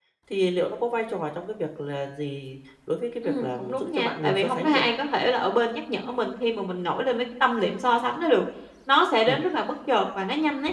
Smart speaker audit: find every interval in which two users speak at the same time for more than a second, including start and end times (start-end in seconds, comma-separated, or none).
3.2-4.8